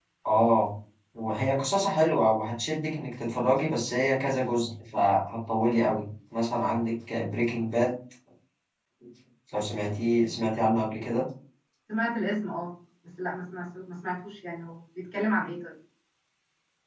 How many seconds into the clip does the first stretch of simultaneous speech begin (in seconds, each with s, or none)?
none